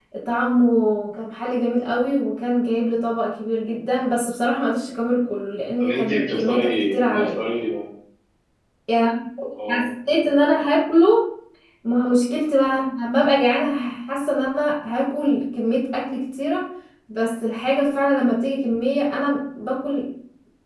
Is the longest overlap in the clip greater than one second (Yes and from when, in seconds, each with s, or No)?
Yes, from 5.8 s